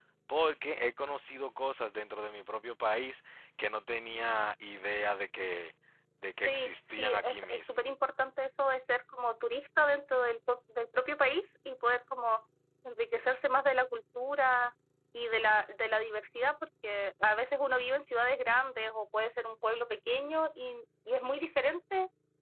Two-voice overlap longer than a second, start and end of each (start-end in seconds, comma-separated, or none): 6.5-7.8